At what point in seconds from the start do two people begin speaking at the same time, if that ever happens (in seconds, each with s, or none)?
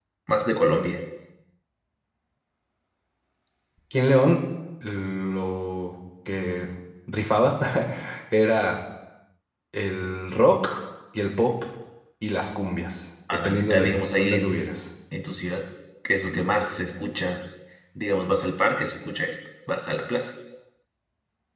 13.3 s